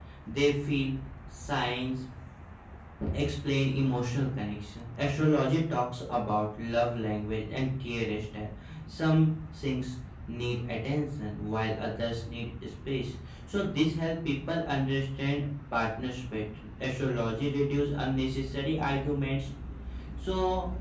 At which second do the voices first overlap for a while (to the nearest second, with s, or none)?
none